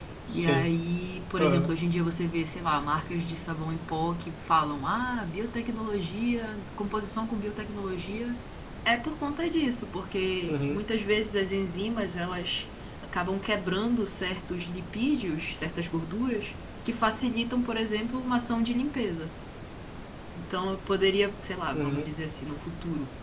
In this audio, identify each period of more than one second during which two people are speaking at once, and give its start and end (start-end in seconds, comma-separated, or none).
none